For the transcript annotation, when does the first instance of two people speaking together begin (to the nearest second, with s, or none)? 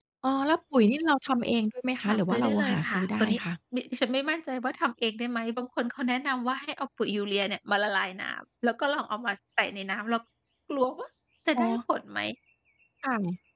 2 s